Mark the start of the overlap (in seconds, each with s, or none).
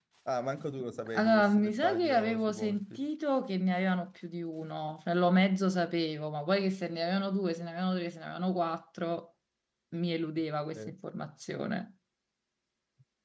1.2 s